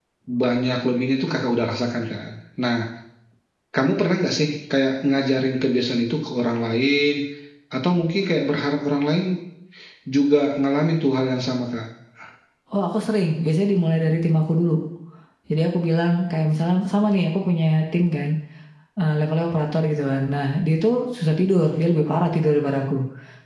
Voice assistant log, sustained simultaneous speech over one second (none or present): none